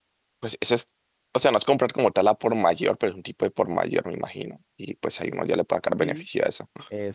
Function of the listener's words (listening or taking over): taking over